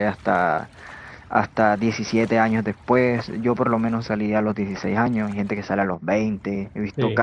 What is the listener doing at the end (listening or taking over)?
listening